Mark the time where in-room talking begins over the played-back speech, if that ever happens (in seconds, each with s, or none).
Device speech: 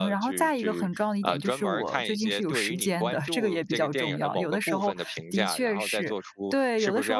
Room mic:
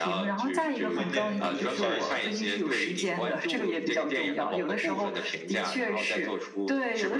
0.9 s